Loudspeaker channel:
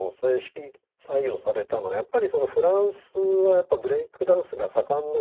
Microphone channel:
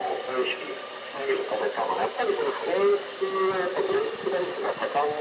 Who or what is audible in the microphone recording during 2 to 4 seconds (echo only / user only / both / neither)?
echo only